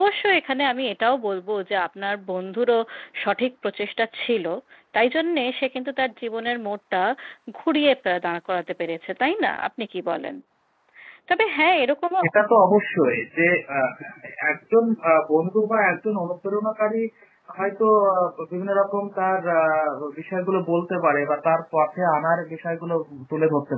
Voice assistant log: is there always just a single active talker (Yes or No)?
Yes